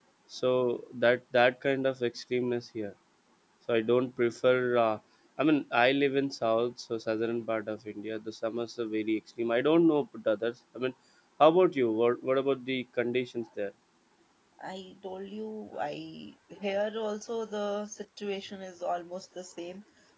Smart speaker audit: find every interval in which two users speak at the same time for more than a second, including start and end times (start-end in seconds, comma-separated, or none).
none